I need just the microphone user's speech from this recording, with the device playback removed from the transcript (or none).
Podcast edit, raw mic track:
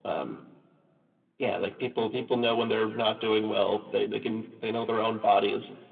none